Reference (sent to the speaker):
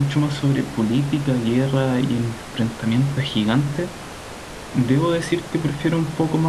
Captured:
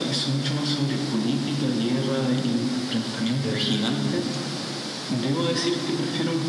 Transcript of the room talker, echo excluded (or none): em,